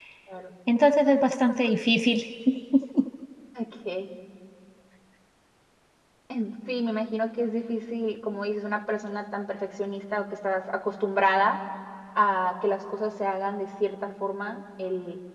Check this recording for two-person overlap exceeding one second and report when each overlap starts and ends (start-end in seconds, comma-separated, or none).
none